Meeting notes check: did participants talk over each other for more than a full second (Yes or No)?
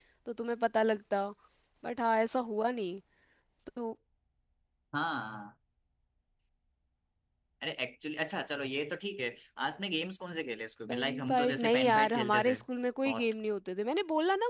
Yes